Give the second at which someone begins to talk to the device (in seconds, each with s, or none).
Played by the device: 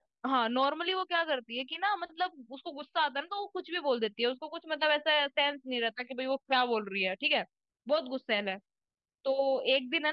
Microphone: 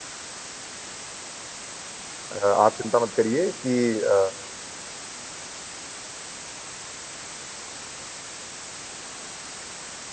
2.3 s